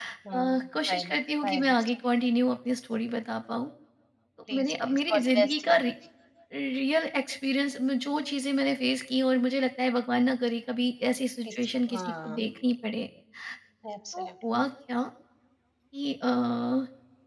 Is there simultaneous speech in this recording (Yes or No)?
Yes